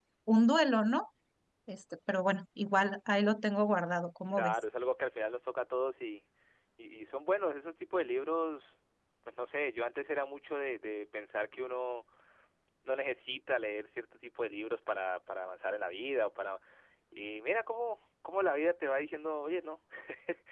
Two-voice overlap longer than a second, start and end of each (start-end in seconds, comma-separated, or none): none